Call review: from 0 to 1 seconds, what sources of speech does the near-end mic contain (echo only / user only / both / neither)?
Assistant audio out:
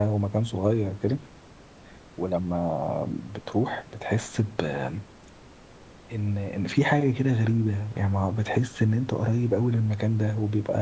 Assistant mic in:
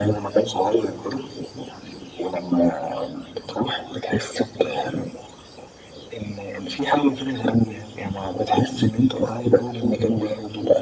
echo only